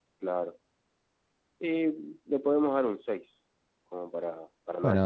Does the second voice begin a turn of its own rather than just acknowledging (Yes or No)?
Yes